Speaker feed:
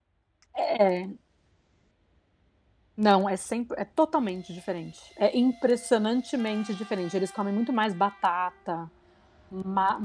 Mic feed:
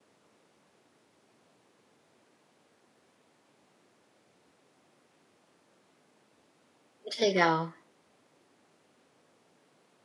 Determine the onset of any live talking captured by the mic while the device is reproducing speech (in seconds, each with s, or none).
7.0 s